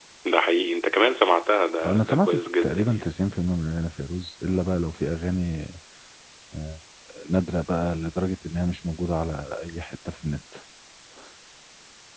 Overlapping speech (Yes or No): Yes